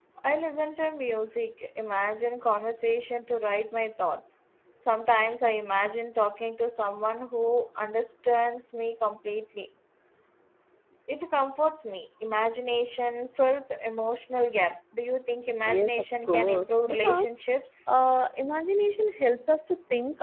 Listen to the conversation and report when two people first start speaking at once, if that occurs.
16 s

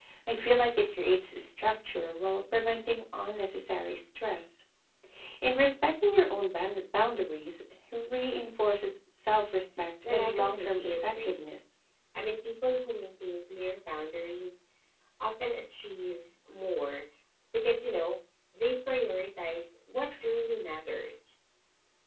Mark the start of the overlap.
10 s

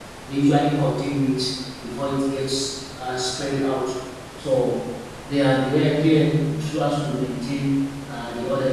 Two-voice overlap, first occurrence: none

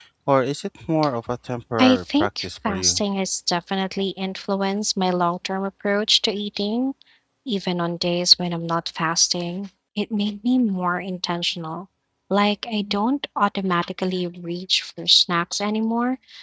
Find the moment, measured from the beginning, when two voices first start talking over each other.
2 s

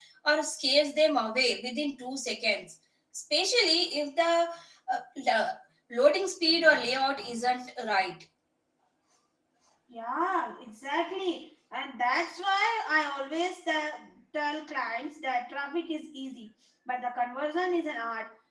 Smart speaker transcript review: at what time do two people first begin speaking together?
none

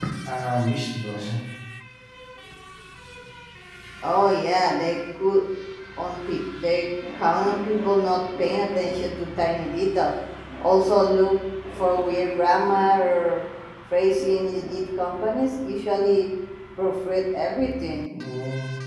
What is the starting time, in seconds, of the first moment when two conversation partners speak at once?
none

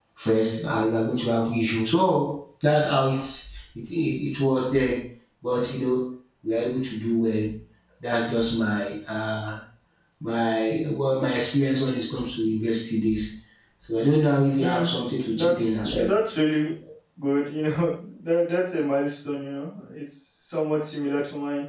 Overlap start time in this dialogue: 15 s

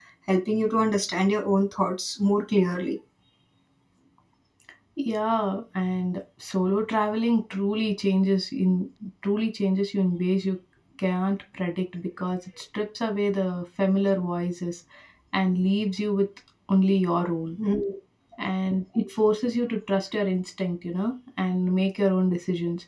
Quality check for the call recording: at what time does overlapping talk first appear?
none

